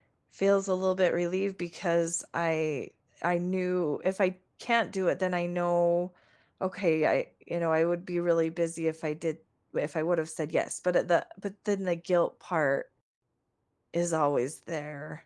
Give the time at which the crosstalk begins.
none

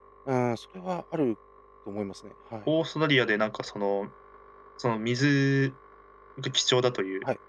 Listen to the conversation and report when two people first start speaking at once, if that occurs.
none

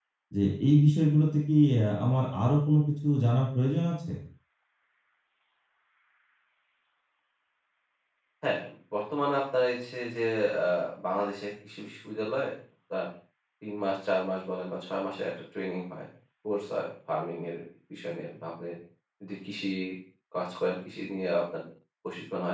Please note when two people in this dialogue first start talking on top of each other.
none

